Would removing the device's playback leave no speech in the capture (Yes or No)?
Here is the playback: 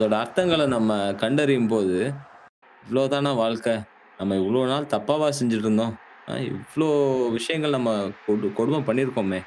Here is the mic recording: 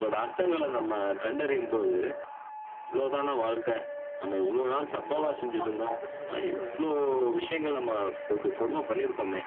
No